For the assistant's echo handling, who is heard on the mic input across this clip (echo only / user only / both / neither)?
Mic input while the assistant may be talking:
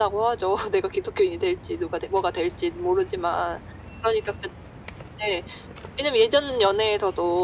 echo only